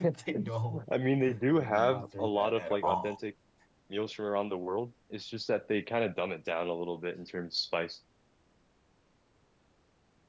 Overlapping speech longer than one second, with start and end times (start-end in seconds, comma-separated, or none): 1.5-3.2